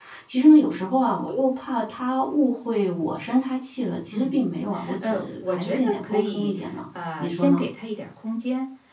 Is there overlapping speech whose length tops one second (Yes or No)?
Yes